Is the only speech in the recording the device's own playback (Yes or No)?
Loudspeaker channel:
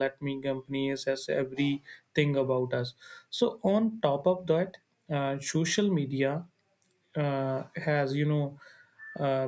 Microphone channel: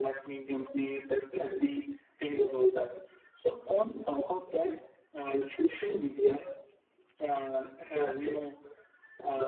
Yes